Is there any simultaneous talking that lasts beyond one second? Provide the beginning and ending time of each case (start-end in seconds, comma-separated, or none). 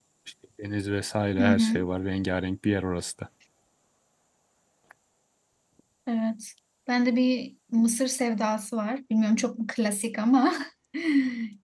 none